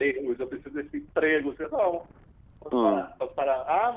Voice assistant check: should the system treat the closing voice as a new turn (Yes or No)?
No